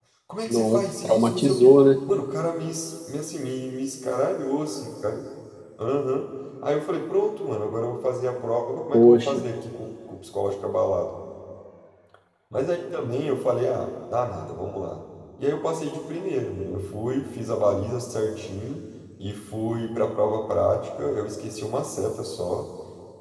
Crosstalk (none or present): present